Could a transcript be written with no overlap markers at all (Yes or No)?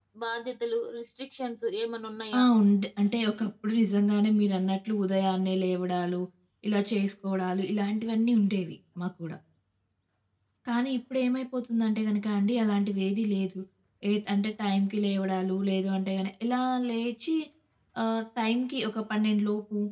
Yes